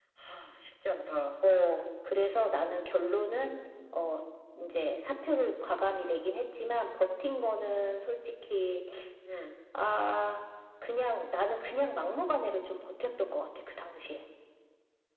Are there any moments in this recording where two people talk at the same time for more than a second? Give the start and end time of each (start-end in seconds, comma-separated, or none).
none